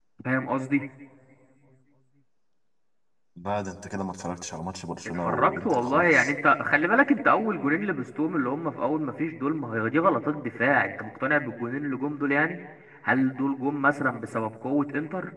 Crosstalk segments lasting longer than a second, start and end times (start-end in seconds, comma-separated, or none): 5.0-6.3